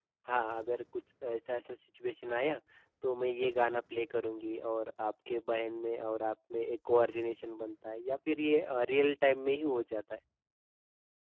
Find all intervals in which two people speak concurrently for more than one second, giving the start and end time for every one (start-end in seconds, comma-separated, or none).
none